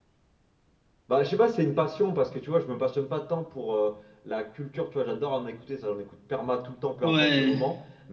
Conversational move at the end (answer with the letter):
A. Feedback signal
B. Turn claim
A